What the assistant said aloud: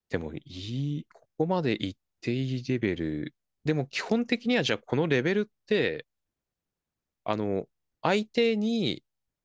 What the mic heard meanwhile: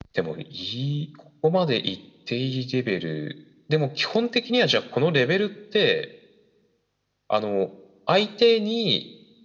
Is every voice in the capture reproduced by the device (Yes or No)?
Yes